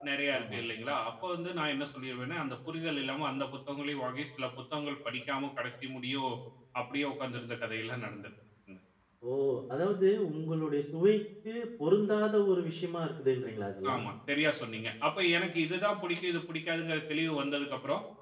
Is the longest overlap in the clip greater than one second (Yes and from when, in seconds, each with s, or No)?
No